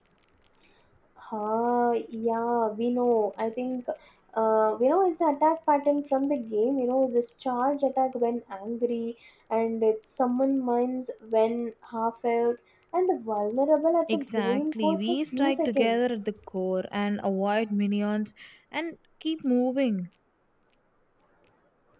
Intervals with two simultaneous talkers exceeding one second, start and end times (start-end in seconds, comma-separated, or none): 14.1-16.2